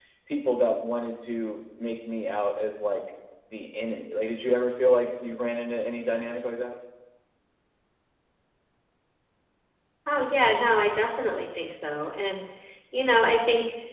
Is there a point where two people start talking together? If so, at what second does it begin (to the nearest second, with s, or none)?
none